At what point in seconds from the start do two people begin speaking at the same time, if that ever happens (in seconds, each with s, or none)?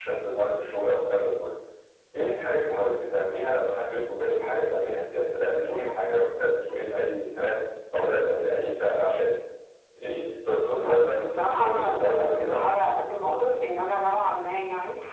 10.6 s